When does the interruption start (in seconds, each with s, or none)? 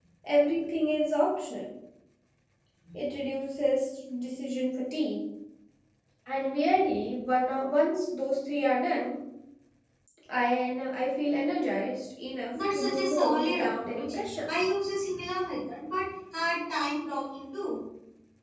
12.5 s